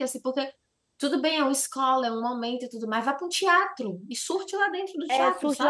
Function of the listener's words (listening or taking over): taking over